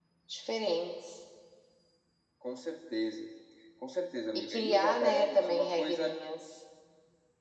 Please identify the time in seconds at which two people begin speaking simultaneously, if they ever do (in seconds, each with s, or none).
4.3 s